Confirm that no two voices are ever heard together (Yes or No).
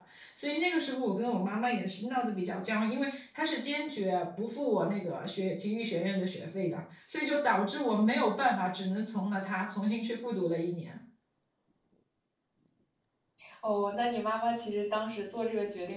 Yes